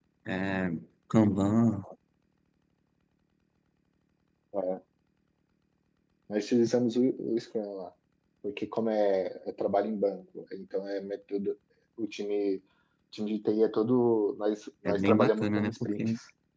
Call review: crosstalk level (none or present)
present